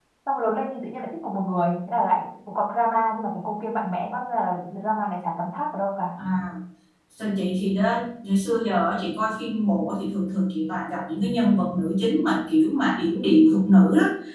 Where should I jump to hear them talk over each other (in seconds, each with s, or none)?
none